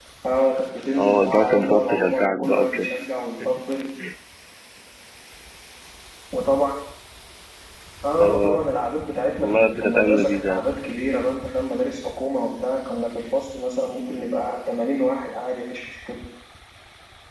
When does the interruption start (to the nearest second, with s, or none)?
1 s